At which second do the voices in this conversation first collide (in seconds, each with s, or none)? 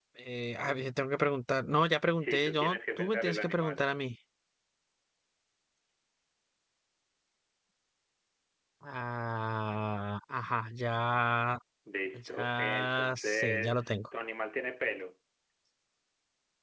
2.1 s